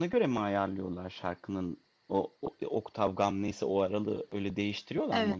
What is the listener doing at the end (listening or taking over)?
taking over